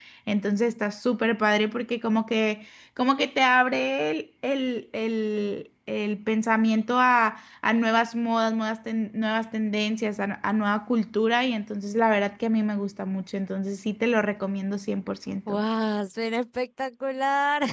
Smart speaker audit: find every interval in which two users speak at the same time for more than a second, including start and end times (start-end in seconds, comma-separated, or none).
none